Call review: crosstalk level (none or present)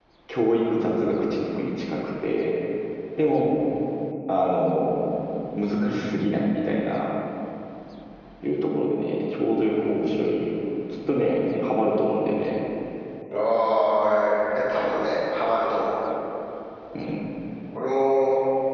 none